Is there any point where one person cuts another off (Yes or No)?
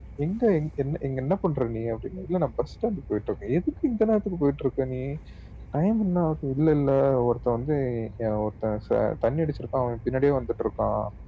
No